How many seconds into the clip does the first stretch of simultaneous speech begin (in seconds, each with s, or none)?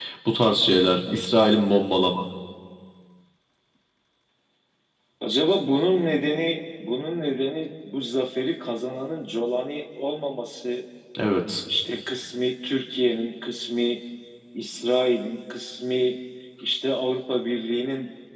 none